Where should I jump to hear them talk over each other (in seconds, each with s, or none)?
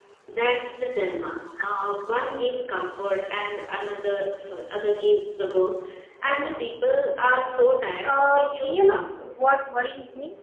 8.0 s